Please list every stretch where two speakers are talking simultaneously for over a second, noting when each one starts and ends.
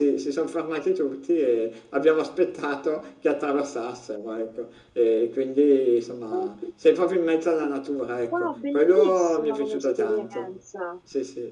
8.3-10.5

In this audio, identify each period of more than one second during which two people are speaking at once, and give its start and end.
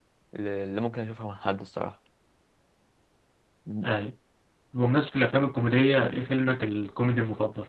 none

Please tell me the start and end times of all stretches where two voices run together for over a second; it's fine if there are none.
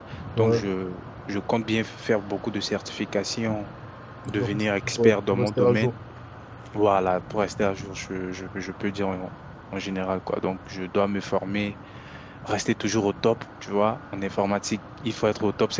4.3-6.0

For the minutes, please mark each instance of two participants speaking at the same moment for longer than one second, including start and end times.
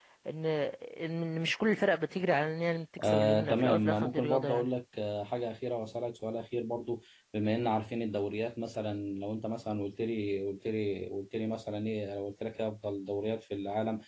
3.0-4.7

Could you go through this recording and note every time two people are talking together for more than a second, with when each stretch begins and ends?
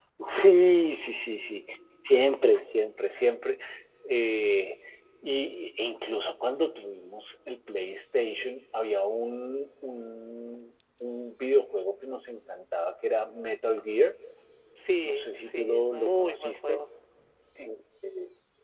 15.0-16.8

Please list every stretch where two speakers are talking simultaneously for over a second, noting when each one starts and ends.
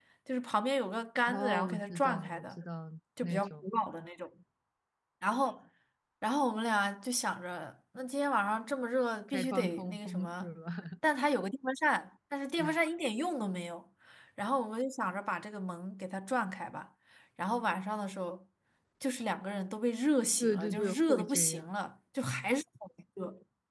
1.3-2.6, 9.3-10.5, 20.4-21.7

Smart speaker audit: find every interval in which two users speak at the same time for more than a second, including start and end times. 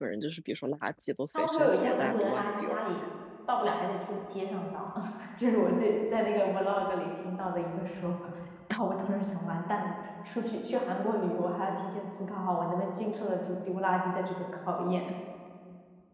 1.3-2.9

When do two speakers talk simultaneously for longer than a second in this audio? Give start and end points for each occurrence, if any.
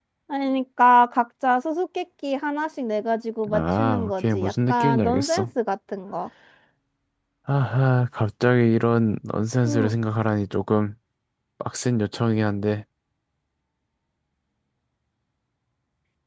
3.5-5.5

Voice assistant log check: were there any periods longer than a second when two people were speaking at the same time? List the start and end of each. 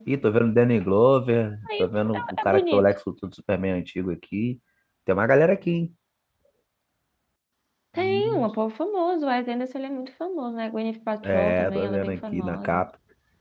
1.7-2.9, 11.2-12.8

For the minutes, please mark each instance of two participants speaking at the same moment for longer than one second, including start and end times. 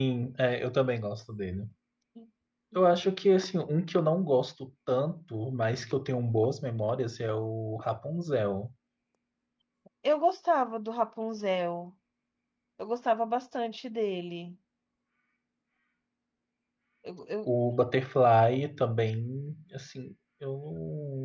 none

